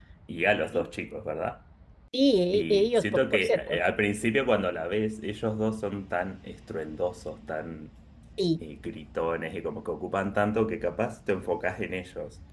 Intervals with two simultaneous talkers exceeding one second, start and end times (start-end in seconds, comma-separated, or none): 2.5-3.8